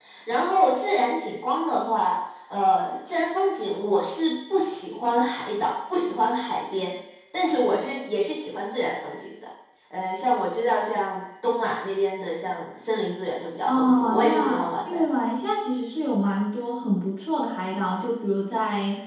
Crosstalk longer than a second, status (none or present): present